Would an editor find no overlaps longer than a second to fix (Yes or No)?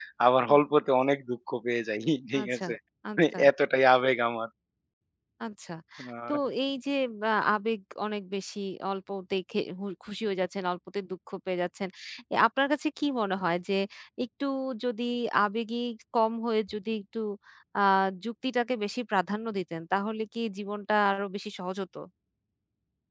Yes